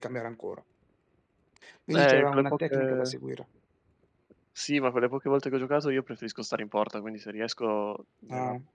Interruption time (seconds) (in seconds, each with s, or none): 1.9 s